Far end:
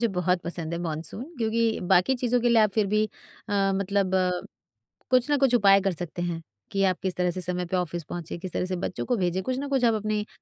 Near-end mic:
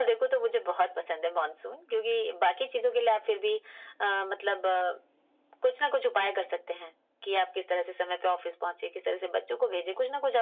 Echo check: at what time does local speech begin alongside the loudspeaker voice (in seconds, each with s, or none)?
none